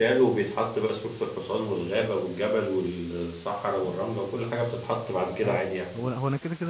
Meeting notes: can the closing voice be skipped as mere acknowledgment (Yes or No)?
No